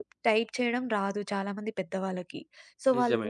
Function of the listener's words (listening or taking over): listening